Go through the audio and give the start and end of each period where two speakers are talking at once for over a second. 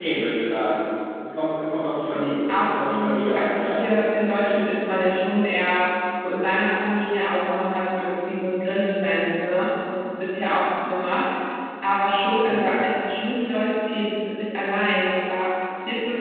2.1-3.8

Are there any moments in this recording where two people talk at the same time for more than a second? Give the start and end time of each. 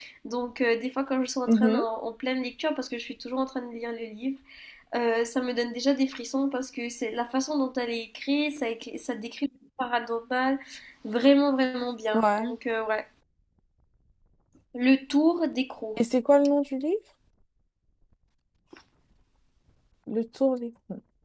none

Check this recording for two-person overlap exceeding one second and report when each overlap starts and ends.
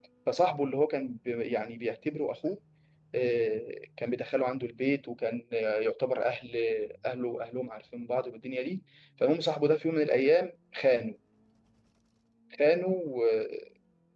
none

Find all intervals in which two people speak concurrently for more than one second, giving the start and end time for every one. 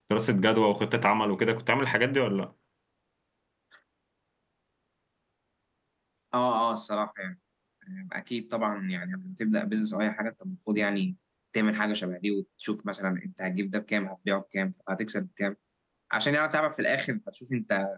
none

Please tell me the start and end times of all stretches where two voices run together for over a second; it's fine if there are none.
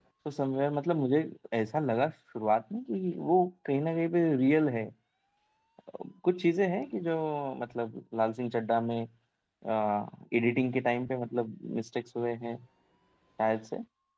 none

